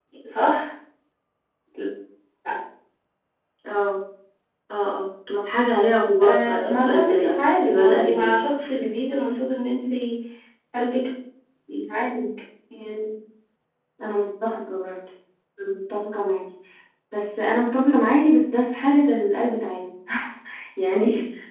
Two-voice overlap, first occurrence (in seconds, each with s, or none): 6.2 s